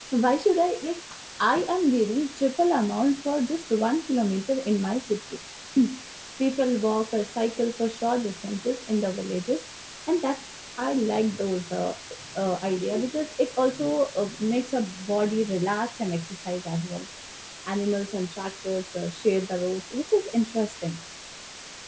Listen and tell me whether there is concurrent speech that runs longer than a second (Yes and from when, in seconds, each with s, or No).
No